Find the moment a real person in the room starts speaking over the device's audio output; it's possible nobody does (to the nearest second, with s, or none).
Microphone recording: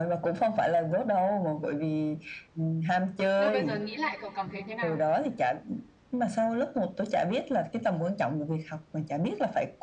3 s